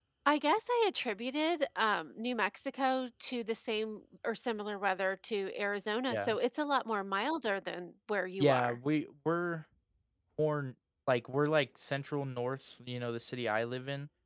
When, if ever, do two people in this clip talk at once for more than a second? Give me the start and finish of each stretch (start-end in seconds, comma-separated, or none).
none